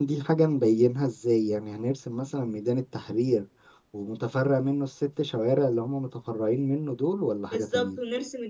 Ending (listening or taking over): taking over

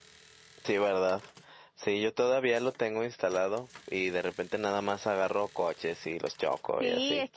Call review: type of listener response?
taking over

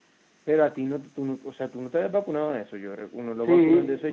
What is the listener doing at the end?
taking over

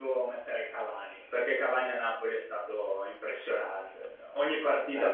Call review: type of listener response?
listening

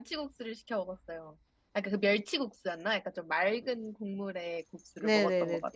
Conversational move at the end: taking over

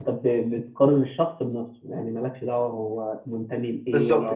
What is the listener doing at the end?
taking over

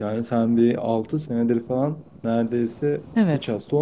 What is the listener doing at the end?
taking over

